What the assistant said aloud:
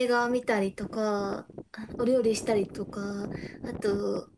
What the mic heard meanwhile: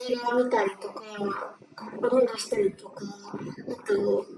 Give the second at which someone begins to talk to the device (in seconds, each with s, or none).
none